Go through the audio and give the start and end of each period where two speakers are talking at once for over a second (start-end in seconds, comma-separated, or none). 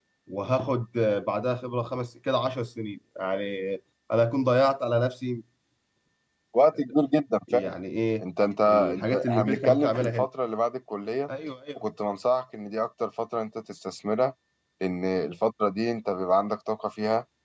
8.7-10.3